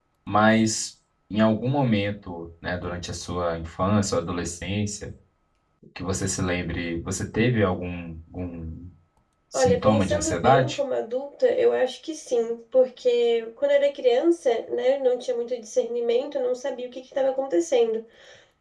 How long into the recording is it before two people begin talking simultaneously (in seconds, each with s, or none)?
9.5 s